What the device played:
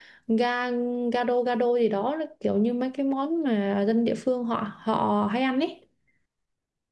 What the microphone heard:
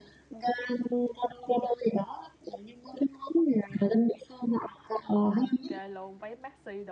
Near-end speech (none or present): present